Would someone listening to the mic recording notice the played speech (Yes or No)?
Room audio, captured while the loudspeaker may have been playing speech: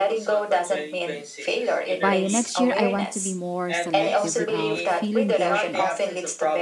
Yes